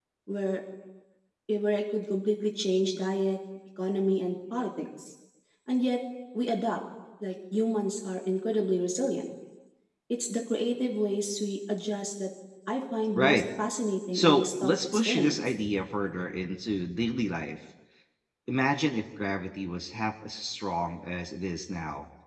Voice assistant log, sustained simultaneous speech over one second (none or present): present